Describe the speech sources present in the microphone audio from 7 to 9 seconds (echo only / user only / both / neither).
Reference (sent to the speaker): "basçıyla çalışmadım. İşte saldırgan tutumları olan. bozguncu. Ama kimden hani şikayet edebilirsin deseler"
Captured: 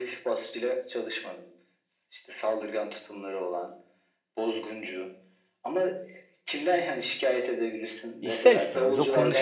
both